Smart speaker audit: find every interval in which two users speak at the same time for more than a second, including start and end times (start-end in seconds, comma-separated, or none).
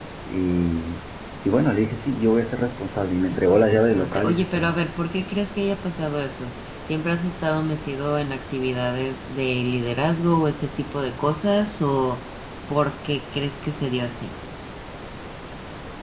3.3-4.8